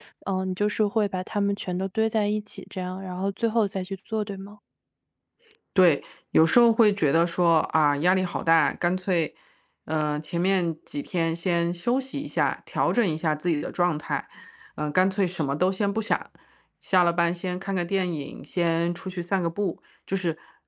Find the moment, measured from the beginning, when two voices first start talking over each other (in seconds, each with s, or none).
none